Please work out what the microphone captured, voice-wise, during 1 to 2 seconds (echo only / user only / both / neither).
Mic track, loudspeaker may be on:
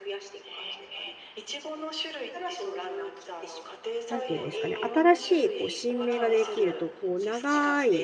echo only